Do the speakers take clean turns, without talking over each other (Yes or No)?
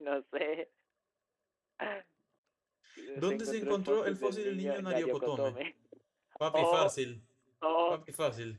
No